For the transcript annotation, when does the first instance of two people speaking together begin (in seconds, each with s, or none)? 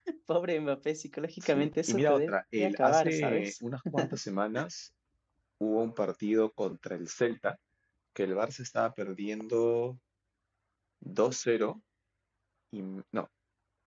1.4 s